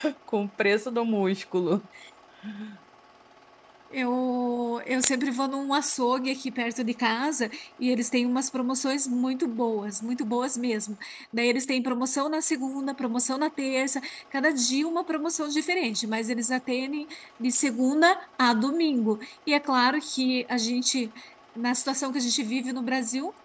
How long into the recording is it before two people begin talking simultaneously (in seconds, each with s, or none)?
none